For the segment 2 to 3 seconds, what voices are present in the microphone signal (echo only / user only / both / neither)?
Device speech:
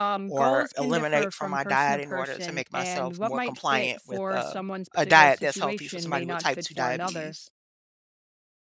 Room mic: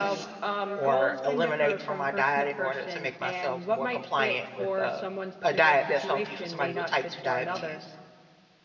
echo only